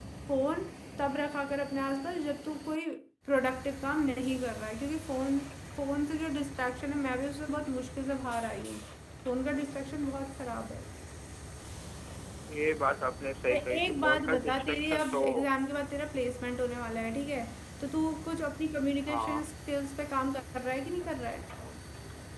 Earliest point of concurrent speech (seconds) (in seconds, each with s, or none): 13.5 s